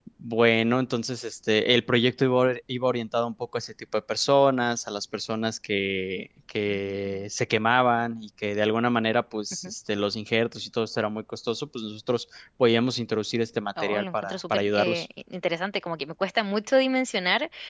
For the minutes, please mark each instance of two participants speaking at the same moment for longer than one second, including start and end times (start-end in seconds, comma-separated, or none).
13.8-15.1